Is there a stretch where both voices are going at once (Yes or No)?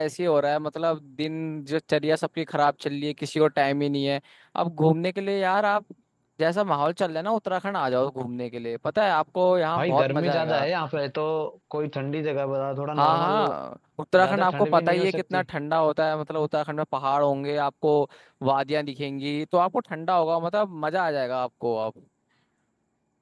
Yes